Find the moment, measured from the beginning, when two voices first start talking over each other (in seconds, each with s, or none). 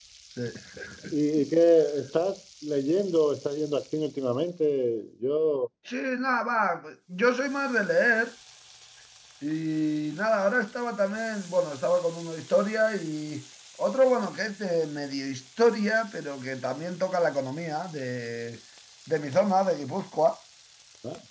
none